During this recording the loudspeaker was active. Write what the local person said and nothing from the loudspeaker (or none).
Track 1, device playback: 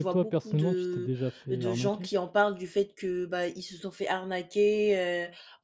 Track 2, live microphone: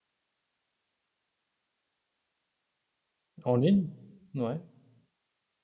En ligne? Ouais.